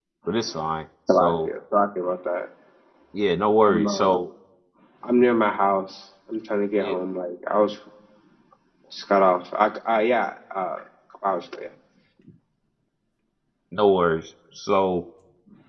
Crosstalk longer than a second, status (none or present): none